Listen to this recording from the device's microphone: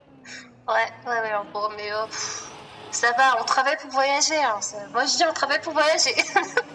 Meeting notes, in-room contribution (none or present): none